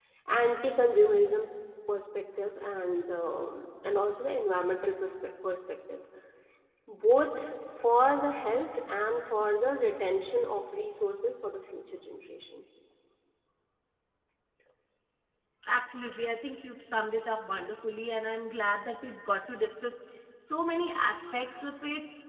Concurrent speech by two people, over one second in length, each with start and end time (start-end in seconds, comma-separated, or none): none